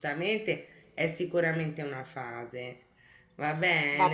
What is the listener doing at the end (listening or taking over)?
taking over